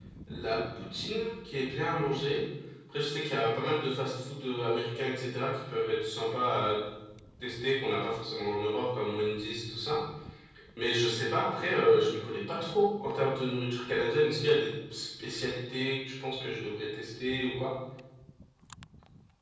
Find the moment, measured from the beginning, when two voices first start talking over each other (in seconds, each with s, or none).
none